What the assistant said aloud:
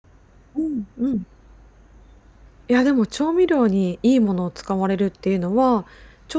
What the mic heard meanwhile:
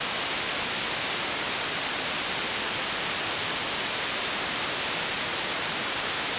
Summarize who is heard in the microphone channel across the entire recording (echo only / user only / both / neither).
neither